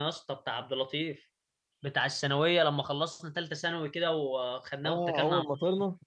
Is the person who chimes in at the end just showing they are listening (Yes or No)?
No